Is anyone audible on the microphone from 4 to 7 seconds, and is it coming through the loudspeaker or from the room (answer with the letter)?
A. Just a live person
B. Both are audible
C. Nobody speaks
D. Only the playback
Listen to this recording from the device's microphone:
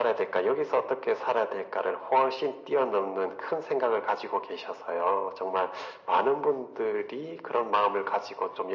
D